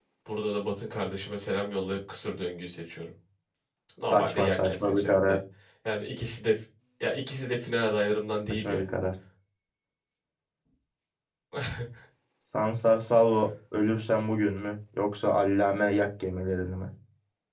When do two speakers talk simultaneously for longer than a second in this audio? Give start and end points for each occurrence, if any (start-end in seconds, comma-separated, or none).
4.1-5.4